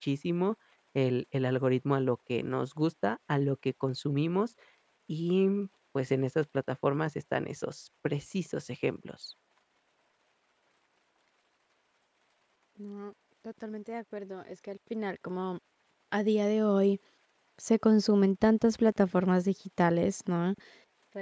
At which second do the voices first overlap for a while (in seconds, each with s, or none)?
none